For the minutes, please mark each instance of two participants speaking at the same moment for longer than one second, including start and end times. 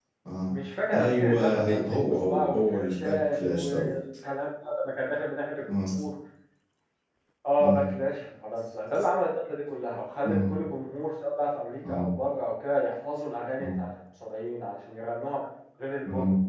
0.9-3.9

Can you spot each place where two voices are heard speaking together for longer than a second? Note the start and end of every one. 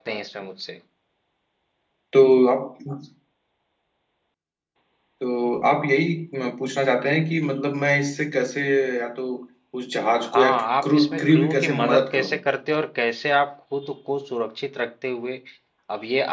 10.3-12.4

